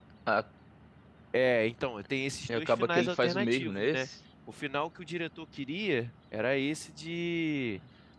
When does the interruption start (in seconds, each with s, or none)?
2.5 s